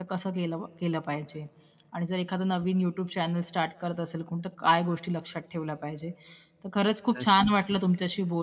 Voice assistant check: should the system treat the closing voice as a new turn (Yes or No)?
No